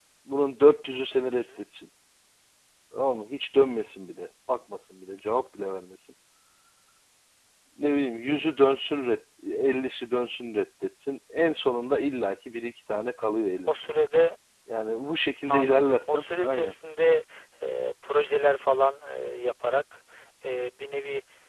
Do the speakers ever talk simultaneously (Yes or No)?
Yes